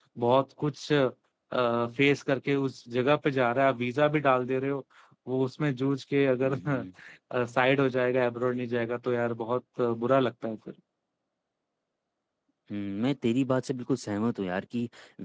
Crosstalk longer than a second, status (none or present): none